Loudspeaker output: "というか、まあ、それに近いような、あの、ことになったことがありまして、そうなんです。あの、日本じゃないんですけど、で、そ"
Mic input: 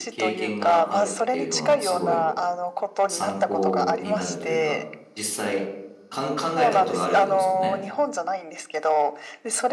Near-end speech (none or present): present